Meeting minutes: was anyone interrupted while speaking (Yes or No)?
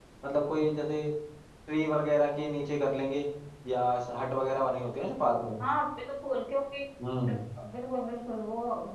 No